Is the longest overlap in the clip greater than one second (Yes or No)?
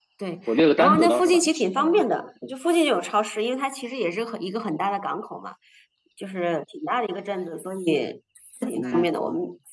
Yes